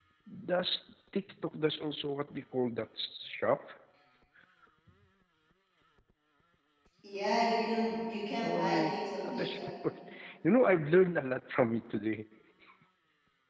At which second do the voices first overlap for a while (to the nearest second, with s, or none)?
8 s